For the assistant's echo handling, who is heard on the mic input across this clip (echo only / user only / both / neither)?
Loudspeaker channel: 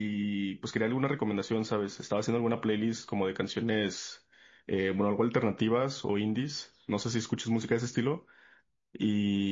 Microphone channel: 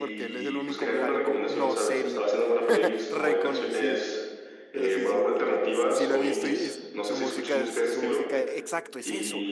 both